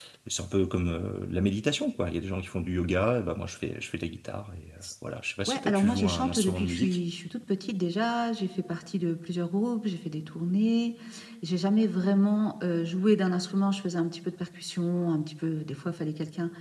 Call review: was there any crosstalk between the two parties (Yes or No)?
Yes